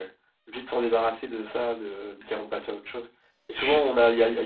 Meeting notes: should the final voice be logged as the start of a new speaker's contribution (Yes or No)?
No